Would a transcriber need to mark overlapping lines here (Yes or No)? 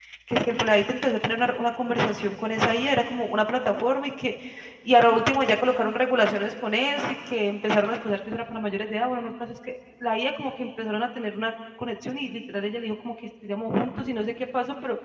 No